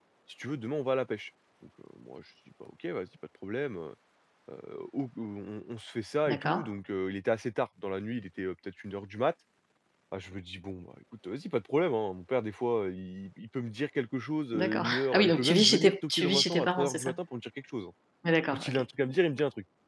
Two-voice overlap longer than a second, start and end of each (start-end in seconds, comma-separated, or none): 14.5-17.2